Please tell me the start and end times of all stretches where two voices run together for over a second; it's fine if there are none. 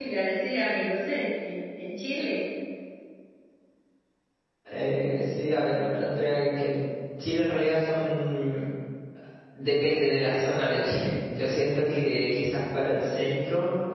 none

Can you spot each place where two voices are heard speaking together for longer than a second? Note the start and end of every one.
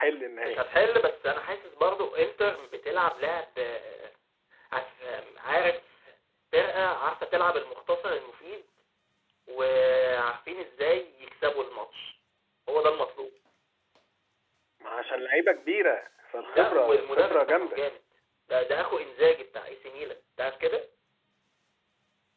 16.4-17.8

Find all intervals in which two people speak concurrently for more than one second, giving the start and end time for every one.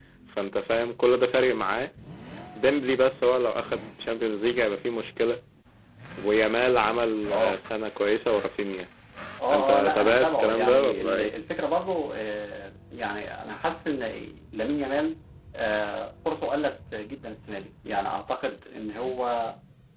9.5-11.3

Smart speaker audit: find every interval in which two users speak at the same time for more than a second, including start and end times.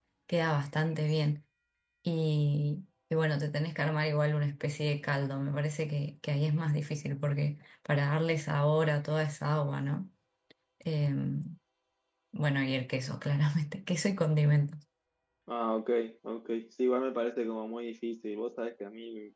none

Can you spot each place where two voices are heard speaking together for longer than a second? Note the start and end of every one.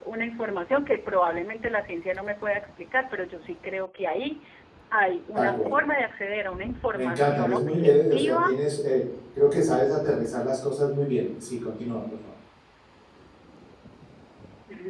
6.9-8.6

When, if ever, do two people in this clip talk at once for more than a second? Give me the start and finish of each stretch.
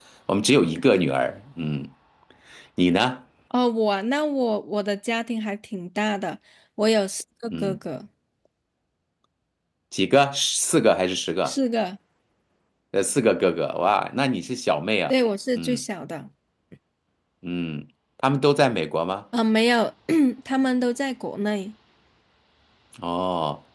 none

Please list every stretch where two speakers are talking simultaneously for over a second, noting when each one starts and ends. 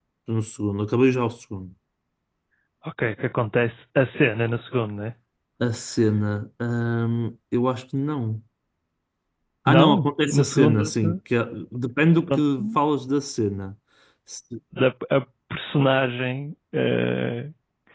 9.7-11.2

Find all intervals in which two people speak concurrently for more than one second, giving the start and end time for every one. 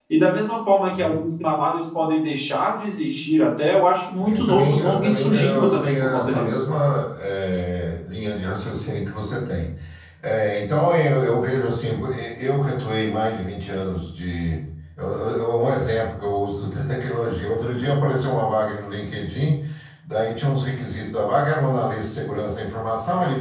4.2-6.6

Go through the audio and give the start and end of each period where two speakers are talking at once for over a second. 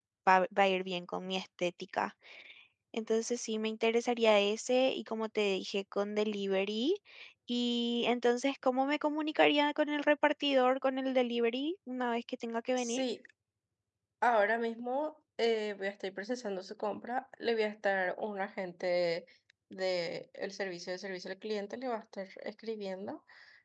none

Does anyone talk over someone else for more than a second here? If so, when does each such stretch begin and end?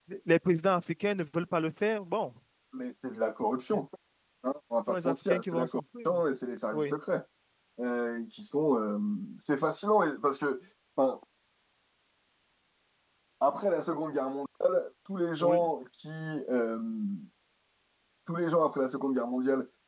4.9-6.2

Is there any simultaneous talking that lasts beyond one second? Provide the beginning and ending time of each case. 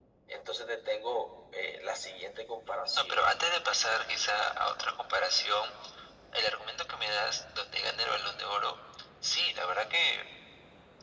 none

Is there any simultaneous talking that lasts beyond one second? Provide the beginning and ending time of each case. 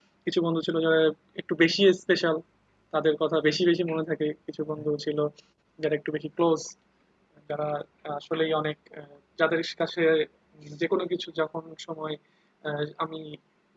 none

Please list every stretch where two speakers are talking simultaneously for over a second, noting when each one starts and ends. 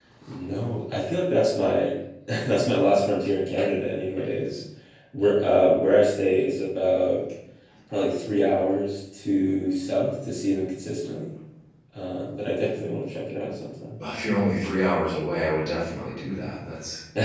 none

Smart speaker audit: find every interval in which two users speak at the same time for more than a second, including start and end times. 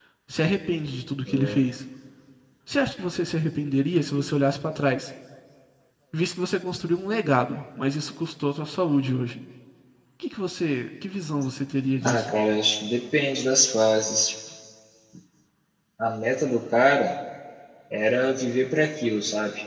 none

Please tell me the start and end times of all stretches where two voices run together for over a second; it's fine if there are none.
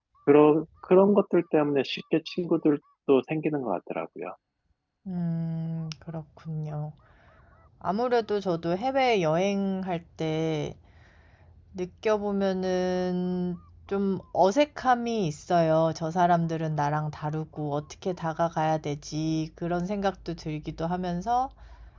none

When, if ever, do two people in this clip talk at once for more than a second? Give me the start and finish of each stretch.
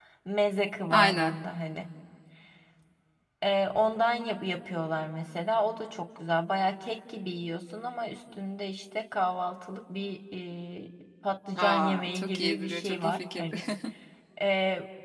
11.6-13.4

